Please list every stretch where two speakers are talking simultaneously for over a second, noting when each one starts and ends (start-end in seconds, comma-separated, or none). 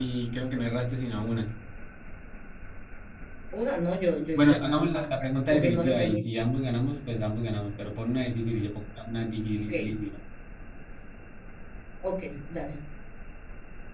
4.3-6.2